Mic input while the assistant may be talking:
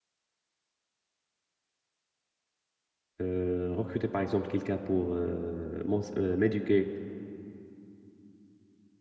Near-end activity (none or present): present